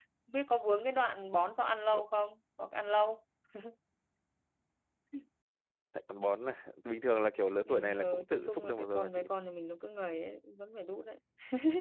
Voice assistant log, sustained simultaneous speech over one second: present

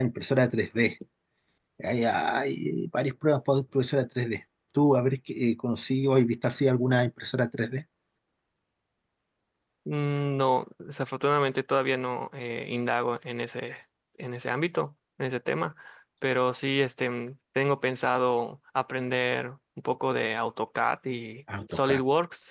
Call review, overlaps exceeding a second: none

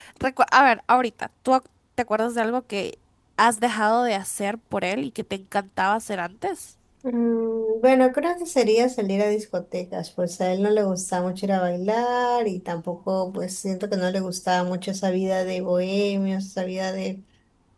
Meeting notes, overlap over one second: none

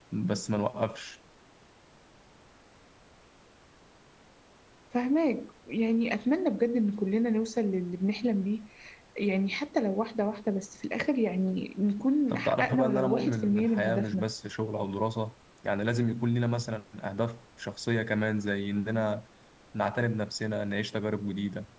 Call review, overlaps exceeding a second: present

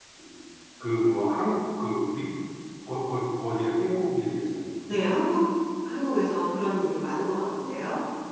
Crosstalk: none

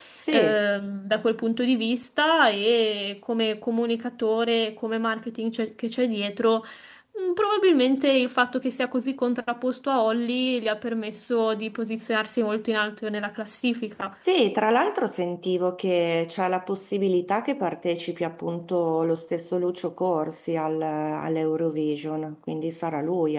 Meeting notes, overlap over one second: none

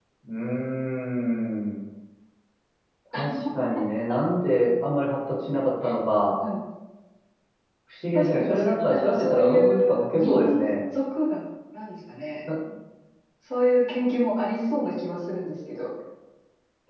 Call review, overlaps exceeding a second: present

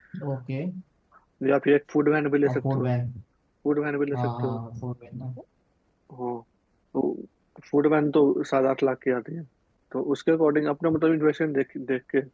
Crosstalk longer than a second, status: none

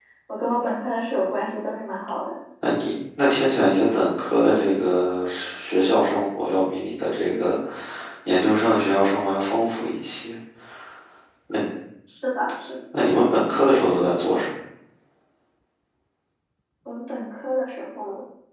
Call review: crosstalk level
none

